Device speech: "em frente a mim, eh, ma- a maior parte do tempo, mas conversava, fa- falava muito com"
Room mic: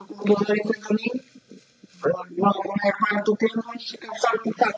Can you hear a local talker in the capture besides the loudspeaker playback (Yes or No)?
No